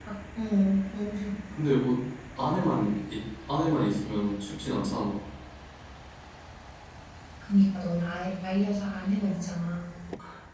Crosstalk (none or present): none